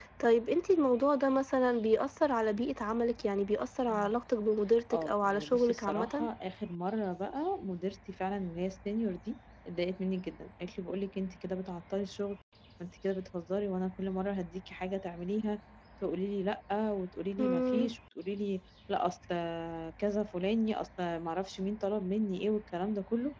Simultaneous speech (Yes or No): Yes